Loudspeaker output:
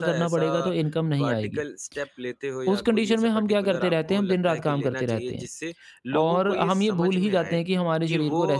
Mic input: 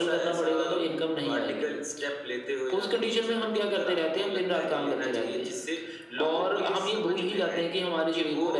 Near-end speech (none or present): none